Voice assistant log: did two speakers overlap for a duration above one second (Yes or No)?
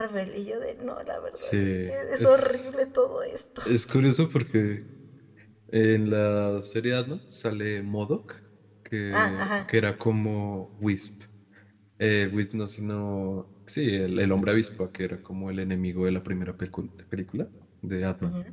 Yes